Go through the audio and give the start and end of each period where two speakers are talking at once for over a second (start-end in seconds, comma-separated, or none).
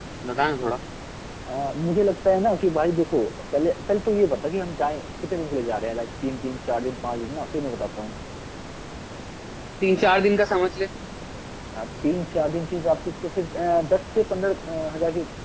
none